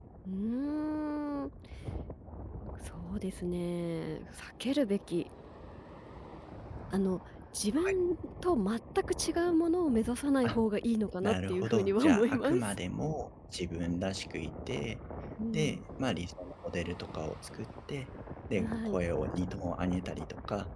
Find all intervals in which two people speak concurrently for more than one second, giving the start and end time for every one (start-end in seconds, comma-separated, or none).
11.2-12.8